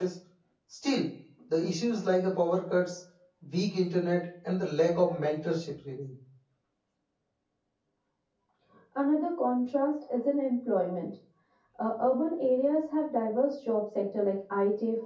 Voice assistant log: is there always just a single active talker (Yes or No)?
Yes